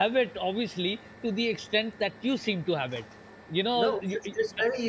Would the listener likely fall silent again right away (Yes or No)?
No